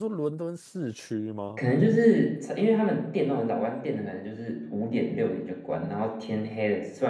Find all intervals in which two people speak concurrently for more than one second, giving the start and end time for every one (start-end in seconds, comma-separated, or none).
none